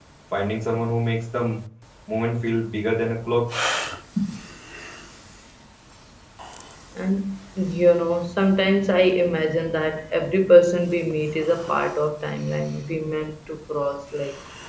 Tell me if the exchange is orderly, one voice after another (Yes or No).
Yes